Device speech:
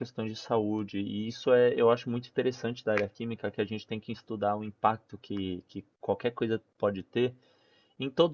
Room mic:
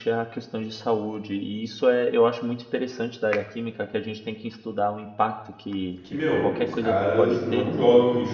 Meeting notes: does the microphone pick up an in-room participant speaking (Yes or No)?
Yes